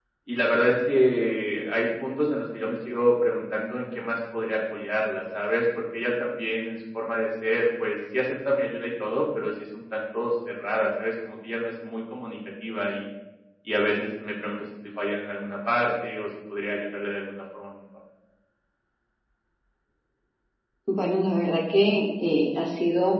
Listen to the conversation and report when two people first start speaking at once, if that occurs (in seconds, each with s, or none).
none